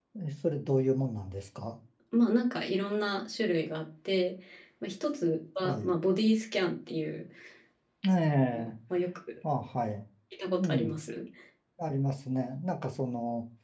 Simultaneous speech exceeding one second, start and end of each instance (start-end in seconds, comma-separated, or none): none